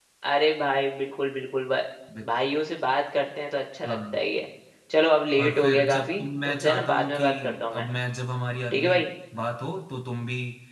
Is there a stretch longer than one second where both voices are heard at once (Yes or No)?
Yes